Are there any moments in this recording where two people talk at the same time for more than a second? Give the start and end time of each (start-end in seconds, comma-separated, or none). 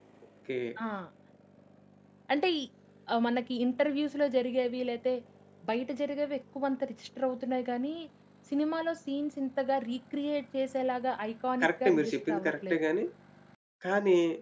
11.6-12.8